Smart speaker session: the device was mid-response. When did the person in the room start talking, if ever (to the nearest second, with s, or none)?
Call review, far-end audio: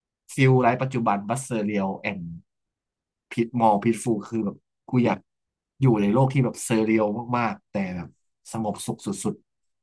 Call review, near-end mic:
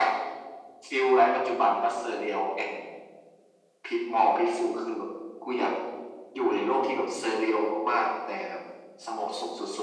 none